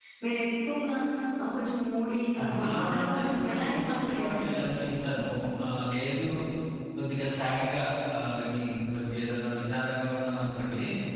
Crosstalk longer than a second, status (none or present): present